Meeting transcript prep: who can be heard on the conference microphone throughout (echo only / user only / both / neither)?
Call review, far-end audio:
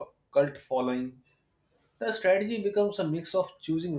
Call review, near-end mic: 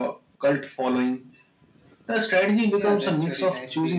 both